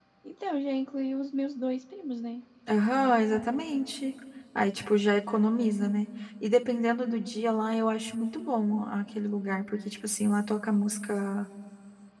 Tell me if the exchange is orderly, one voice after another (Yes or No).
Yes